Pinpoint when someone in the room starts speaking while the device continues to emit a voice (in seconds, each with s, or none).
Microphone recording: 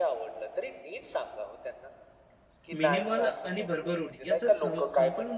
2.8 s